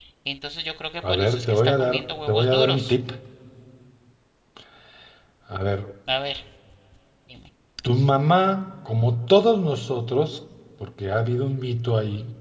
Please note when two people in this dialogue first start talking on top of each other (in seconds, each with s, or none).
1.1 s